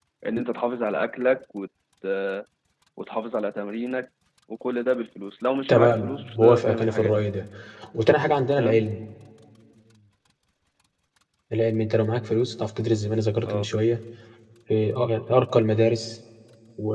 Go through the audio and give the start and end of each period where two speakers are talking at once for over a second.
5.7-7.3

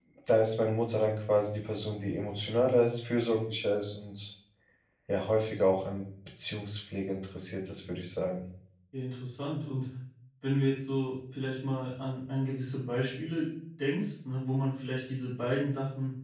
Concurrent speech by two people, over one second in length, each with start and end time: none

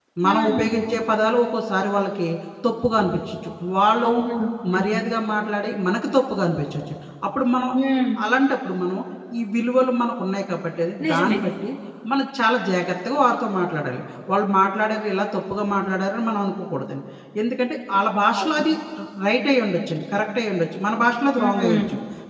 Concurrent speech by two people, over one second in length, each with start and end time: none

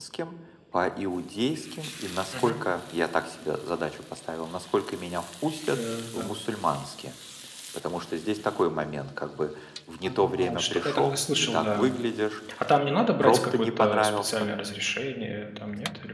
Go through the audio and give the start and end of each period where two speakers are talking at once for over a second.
10.0-11.9, 12.9-14.5

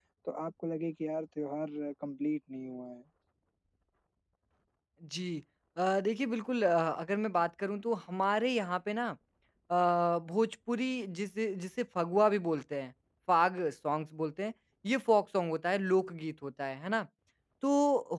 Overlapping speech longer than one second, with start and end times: none

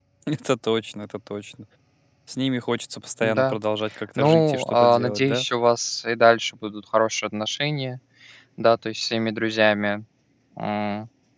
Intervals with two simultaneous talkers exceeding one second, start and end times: 4.2-5.5

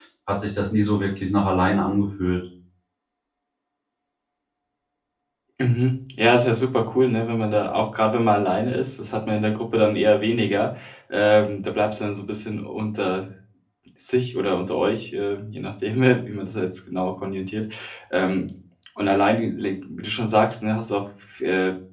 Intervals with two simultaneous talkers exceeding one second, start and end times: none

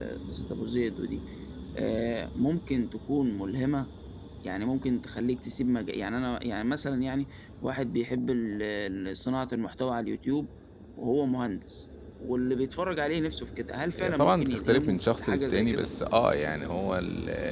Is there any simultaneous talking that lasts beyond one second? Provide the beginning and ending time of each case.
14.0-15.9

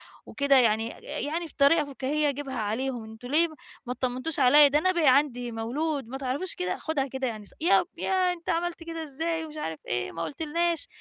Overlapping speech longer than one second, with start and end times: none

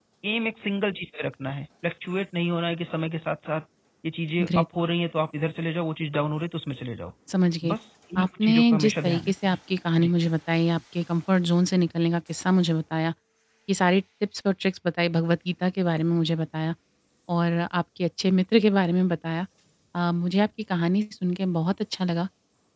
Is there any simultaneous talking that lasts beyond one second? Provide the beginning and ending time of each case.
8.2-9.6

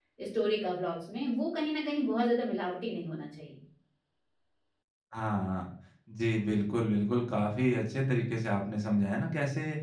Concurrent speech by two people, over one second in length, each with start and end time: none

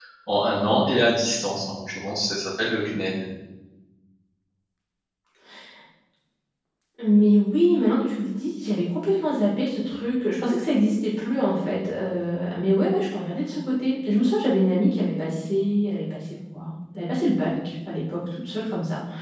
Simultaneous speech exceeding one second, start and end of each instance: none

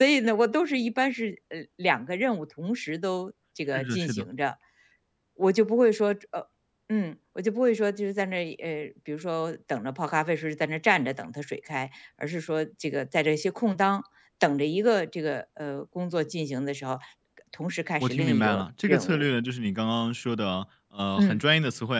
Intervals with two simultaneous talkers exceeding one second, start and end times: 18.0-19.3

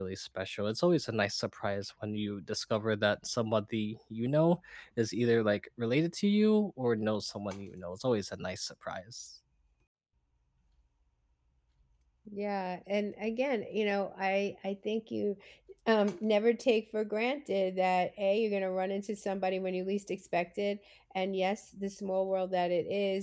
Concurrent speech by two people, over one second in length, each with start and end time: none

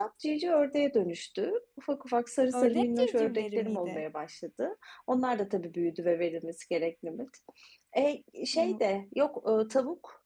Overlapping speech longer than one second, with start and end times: 2.5-4.0

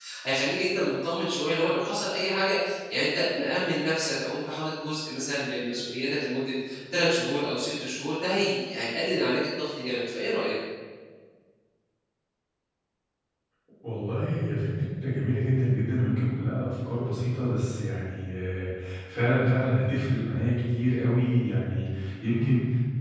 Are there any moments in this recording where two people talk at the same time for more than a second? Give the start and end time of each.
none

